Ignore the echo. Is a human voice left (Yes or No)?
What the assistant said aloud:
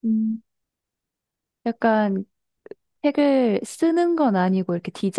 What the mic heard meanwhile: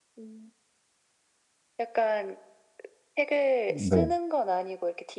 Yes